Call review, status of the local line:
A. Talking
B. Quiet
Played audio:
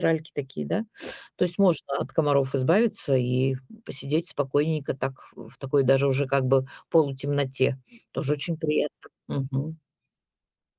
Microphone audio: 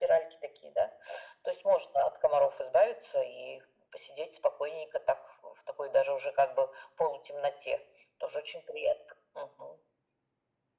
B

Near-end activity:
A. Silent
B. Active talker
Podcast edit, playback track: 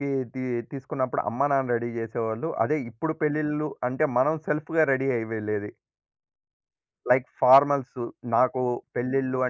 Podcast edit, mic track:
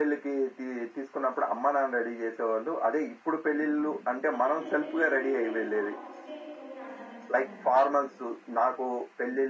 B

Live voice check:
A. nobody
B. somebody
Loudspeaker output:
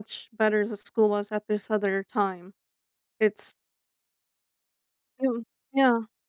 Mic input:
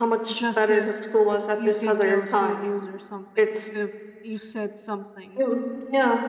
B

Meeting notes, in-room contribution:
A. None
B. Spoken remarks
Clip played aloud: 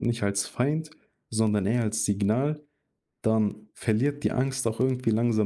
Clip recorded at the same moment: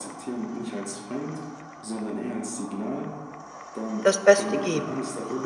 B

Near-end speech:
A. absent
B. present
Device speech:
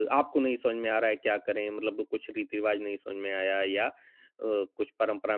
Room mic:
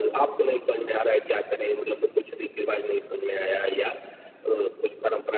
A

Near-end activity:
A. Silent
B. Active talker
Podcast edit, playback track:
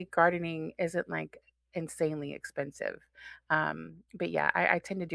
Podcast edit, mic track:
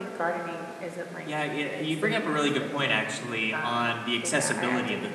B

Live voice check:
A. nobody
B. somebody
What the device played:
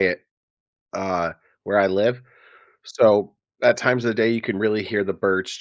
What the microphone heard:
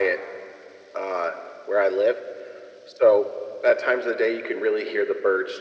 A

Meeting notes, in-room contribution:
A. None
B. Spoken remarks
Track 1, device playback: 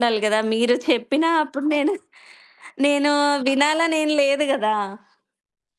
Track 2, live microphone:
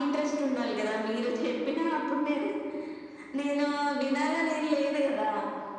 A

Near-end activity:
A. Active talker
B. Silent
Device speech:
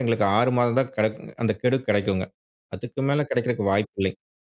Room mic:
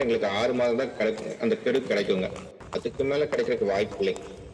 B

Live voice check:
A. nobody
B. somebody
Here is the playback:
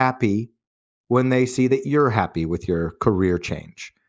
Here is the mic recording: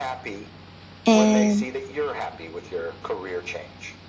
B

